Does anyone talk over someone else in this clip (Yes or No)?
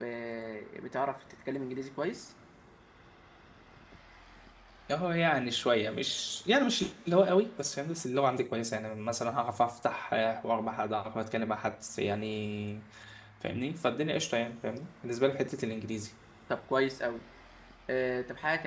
No